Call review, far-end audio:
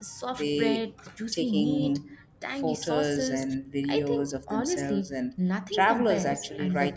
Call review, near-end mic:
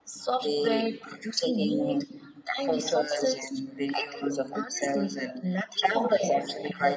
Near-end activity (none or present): none